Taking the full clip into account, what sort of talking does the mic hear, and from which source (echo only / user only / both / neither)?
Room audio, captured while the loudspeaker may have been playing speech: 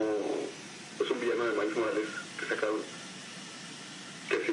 echo only